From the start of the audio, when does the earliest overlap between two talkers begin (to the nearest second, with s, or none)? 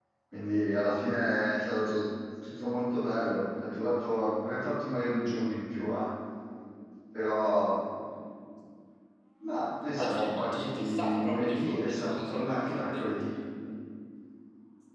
10 s